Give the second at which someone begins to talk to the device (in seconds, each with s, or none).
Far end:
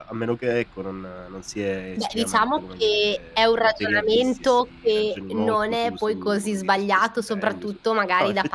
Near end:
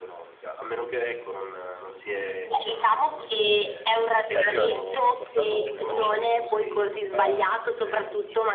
4.3 s